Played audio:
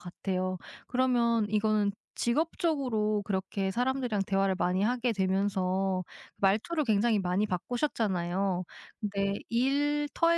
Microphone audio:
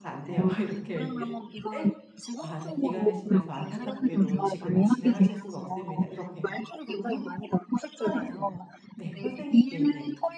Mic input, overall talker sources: both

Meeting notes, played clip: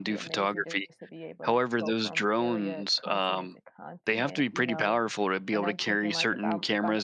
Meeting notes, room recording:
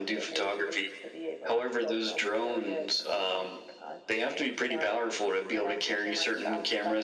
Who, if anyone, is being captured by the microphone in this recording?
echo only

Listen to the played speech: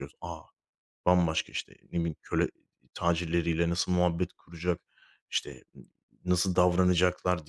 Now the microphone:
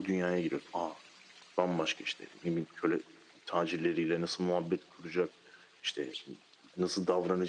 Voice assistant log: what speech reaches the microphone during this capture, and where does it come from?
echo only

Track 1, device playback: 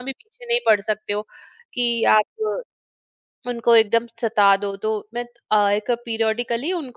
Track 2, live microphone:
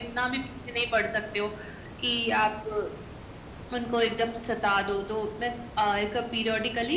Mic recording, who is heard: echo only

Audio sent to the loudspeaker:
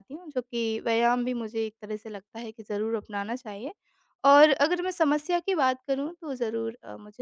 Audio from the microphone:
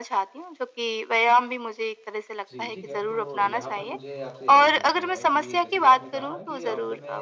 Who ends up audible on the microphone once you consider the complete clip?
both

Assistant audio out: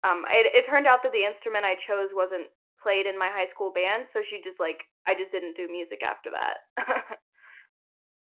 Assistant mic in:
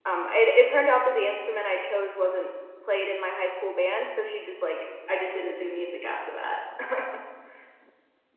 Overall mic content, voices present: echo only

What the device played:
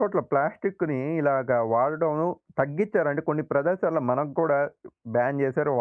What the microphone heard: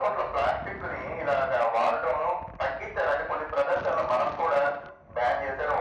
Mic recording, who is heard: echo only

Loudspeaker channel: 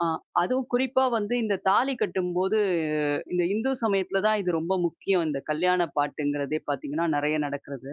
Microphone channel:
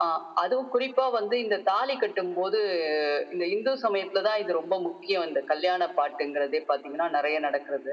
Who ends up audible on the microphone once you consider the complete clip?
echo only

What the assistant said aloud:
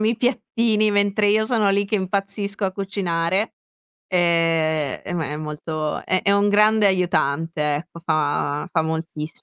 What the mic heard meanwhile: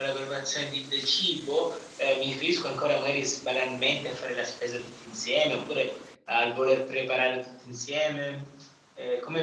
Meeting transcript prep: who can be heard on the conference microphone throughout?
user only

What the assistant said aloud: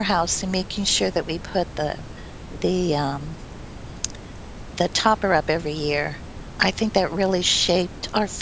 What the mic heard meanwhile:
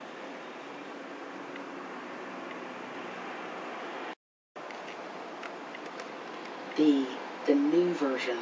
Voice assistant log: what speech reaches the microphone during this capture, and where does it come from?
user only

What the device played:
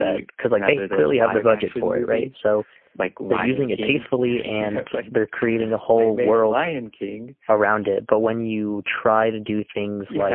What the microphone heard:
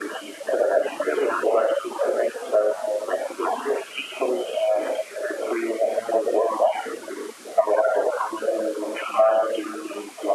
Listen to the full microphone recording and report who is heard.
echo only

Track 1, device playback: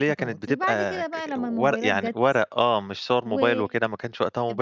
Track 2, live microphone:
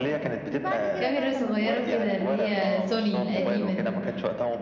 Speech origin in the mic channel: both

